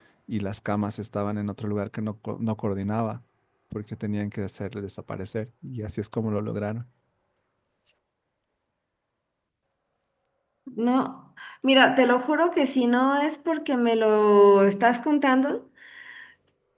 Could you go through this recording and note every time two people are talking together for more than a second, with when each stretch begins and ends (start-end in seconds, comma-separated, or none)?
none